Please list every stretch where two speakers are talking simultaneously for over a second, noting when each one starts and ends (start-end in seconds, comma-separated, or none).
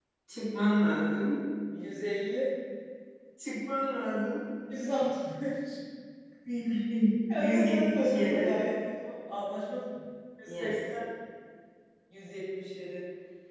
7.3-8.6